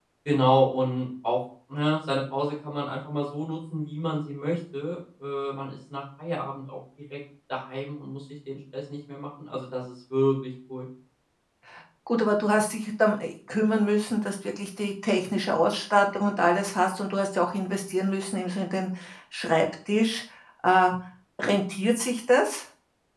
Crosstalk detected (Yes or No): No